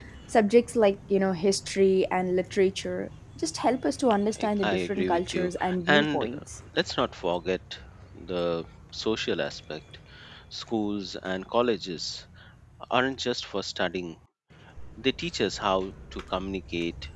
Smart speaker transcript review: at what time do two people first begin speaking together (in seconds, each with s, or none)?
4.4 s